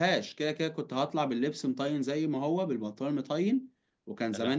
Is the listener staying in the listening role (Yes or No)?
Yes